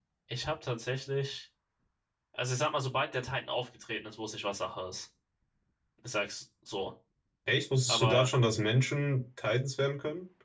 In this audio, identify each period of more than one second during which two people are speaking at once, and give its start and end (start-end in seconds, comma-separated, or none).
none